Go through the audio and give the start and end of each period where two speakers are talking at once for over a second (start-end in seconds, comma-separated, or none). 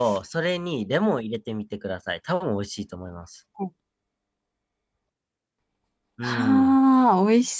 none